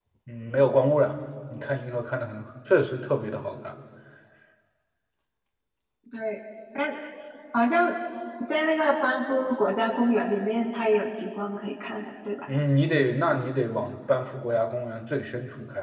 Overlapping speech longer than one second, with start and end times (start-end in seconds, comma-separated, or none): none